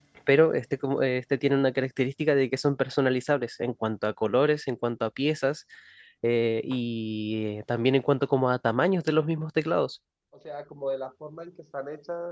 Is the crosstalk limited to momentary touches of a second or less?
Yes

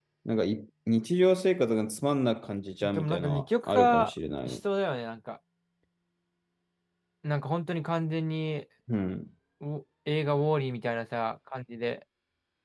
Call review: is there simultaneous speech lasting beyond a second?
Yes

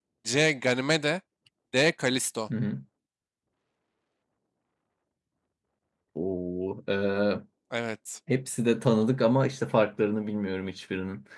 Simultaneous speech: No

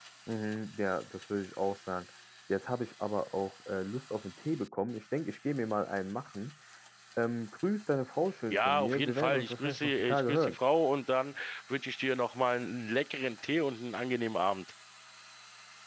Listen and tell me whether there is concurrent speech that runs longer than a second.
Yes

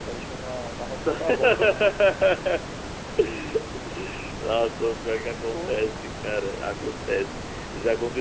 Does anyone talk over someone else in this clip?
Yes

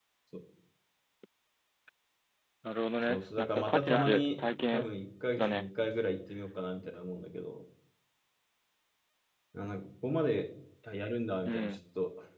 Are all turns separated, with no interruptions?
No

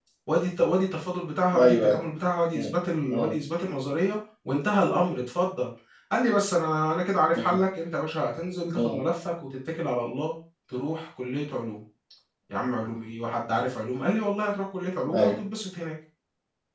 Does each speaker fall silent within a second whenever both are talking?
Yes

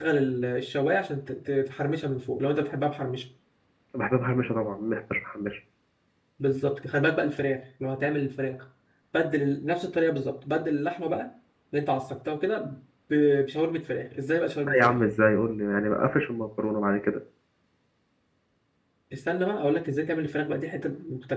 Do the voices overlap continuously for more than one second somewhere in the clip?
No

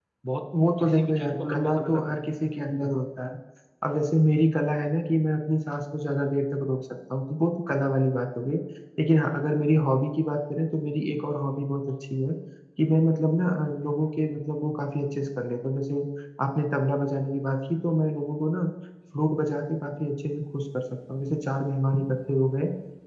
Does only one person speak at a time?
No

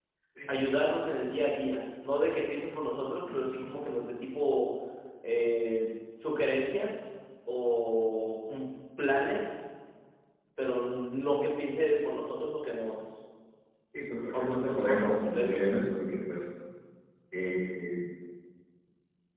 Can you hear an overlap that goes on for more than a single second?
Yes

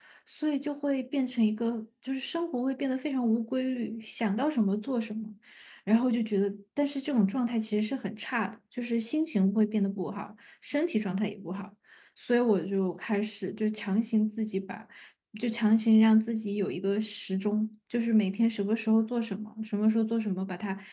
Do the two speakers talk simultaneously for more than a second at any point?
No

